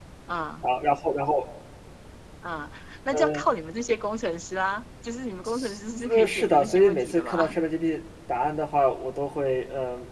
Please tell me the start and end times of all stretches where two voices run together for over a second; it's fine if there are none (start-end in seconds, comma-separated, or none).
6.1-7.5